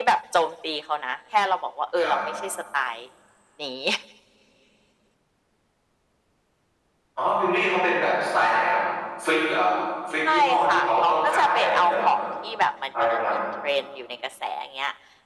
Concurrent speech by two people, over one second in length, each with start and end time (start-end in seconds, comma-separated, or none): 10.2-12.1